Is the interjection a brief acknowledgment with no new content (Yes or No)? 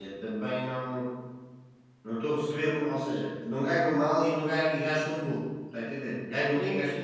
No